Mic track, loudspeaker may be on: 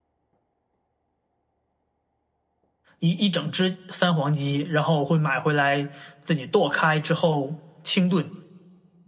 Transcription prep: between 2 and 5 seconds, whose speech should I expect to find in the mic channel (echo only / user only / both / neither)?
user only